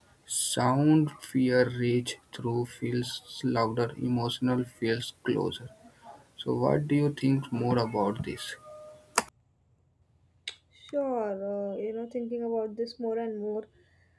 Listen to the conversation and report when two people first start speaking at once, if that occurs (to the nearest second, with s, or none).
none